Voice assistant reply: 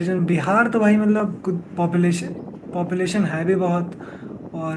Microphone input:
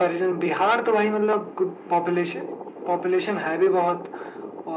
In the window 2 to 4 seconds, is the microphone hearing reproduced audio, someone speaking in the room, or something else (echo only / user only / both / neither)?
echo only